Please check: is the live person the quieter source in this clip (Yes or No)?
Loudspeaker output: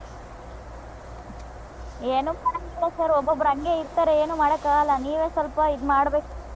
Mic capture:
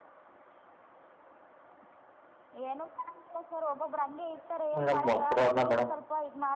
No